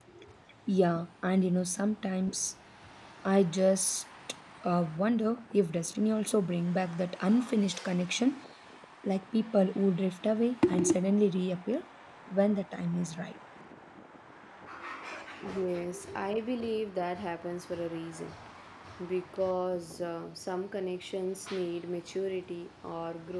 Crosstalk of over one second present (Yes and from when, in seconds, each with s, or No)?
No